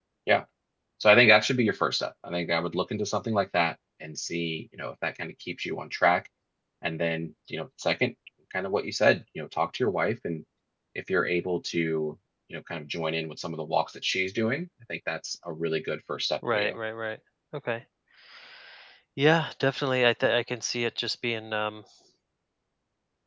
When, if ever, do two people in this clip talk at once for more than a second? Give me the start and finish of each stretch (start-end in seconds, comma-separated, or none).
none